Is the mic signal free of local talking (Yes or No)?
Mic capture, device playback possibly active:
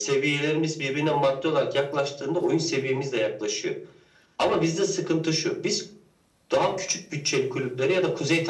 Yes